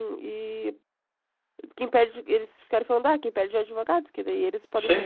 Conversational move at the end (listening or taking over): listening